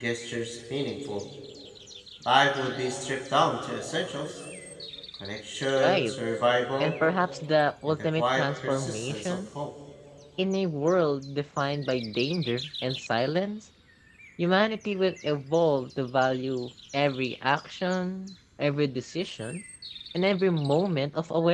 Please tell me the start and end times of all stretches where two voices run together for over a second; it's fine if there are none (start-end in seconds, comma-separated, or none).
7.9-9.4